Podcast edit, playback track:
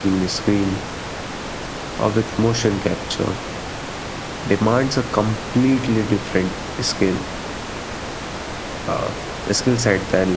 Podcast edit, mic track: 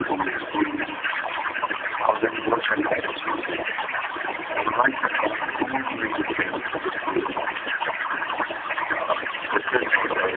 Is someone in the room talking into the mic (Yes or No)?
Yes